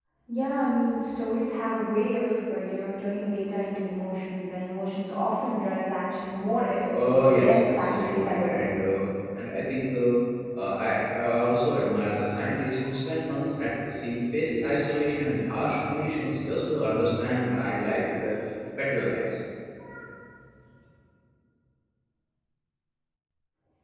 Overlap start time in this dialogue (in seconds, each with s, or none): 6.9 s